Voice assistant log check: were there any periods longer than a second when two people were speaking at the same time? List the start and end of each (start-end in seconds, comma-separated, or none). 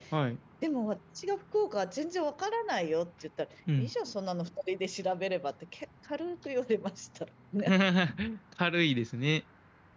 none